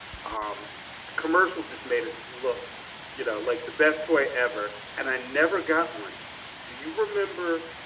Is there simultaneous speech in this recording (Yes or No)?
No